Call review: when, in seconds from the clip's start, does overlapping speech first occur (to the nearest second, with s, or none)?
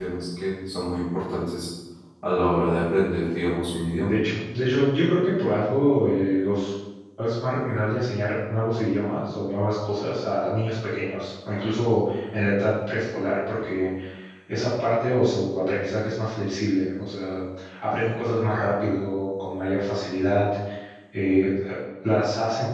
none